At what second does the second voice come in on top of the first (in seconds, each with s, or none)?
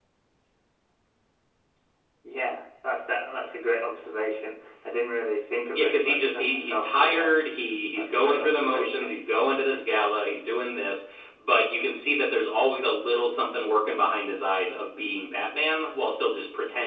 5.7 s